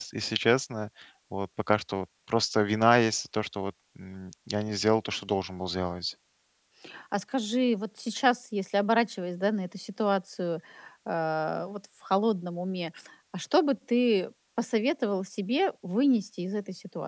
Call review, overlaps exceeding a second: none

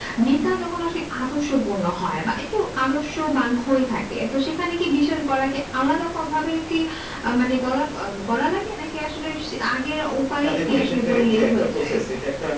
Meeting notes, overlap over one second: present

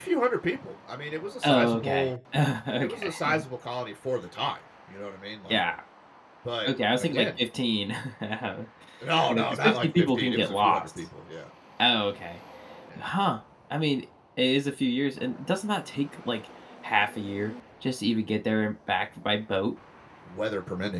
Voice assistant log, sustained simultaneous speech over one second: present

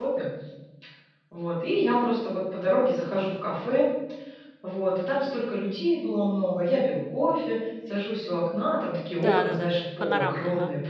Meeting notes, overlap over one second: present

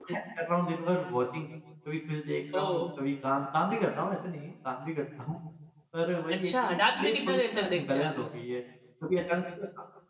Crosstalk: present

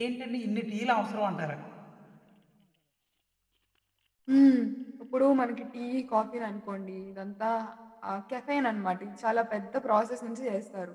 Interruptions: none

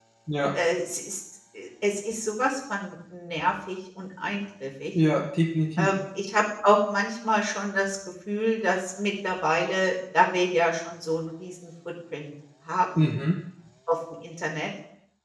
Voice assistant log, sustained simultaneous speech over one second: none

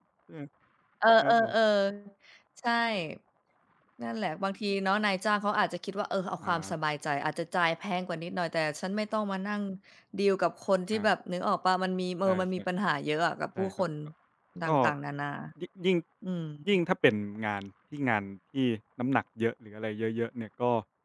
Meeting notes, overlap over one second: none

